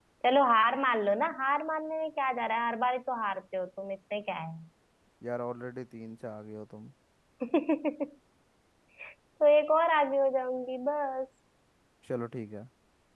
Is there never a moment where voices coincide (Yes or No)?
Yes